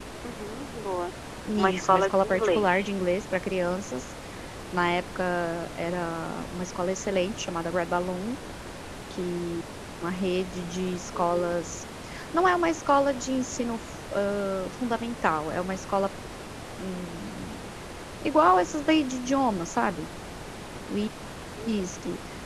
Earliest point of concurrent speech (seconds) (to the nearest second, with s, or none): 2 s